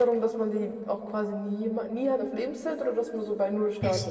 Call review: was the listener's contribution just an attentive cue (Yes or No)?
No